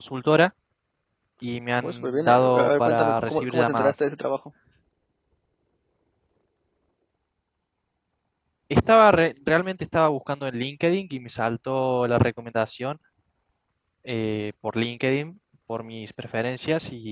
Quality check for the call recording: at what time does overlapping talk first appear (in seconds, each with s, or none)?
1.8 s